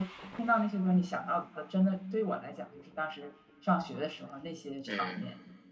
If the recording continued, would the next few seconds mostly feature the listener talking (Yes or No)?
Yes